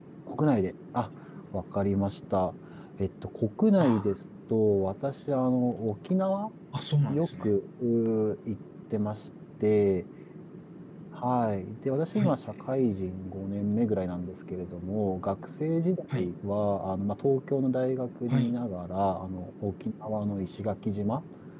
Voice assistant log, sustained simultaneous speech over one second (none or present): none